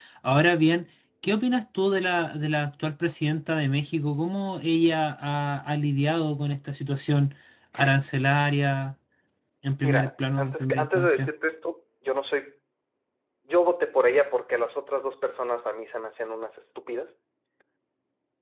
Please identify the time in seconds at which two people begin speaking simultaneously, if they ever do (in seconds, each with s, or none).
9.8 s